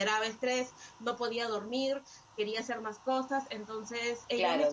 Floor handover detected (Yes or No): Yes